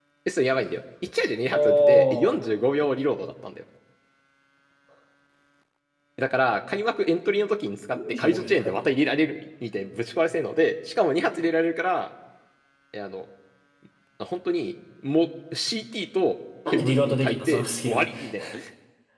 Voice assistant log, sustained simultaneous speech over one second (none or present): present